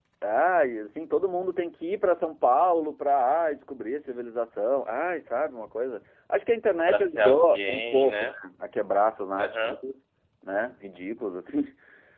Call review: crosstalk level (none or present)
present